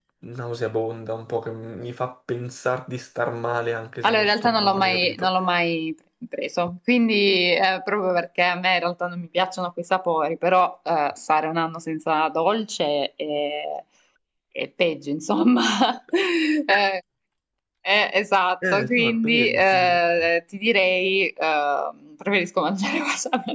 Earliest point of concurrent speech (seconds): 4.0 s

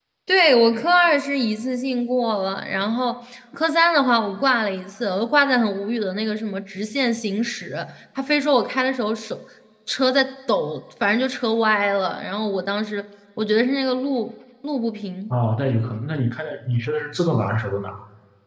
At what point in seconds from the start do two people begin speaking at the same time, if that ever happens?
none

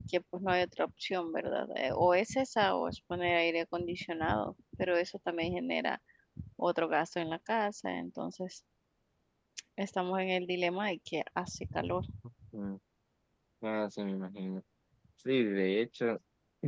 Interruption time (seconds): none

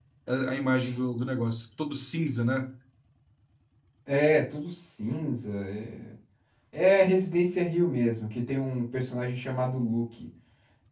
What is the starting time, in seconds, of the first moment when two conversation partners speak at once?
none

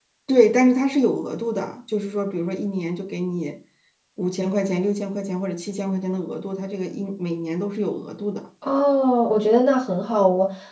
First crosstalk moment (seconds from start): none

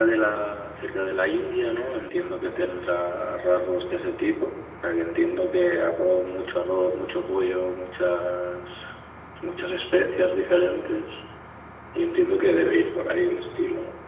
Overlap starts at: none

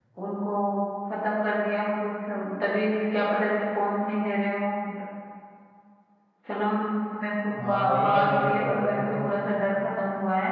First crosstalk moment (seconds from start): 7.5 s

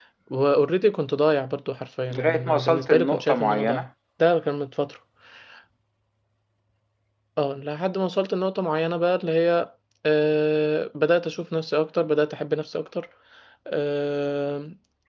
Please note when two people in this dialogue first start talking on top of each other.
2.1 s

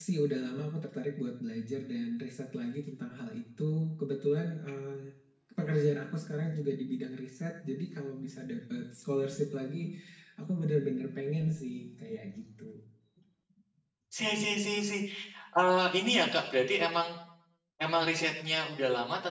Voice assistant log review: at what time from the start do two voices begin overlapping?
none

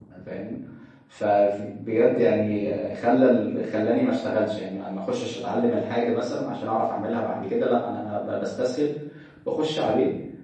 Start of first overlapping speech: none

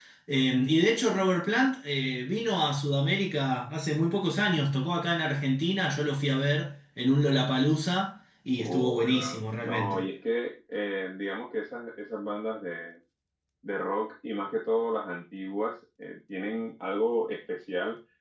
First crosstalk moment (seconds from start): 8.6 s

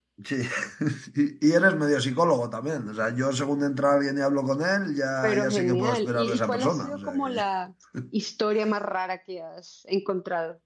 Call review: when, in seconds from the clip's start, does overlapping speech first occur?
5.2 s

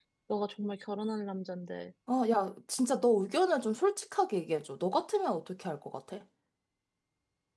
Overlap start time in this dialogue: none

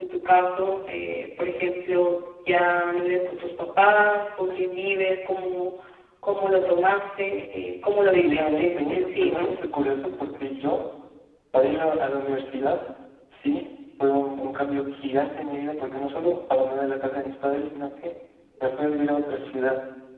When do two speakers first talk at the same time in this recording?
8.1 s

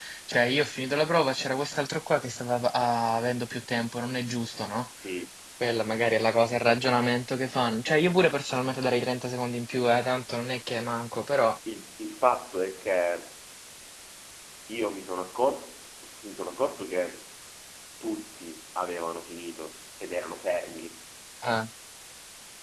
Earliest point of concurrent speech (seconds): none

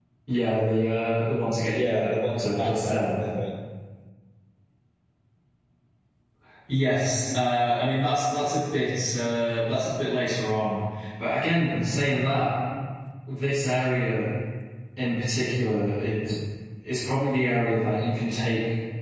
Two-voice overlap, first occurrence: 1.7 s

